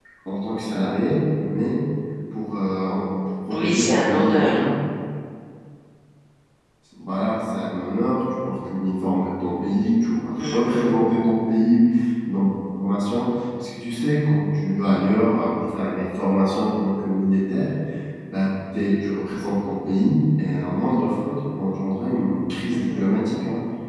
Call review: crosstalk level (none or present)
present